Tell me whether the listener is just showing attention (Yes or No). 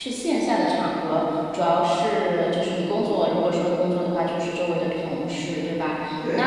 Yes